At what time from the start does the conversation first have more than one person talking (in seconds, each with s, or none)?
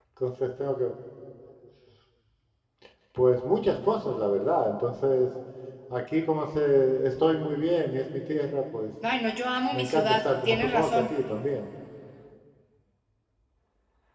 9.7 s